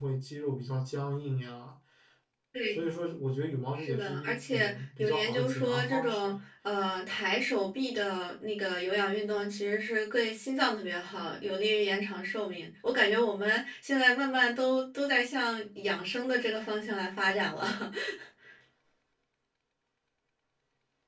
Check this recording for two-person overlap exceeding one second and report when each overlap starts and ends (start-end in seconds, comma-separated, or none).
3.8-6.3